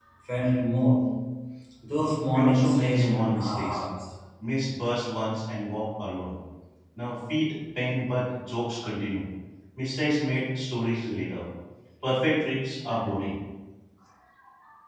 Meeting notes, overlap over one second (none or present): present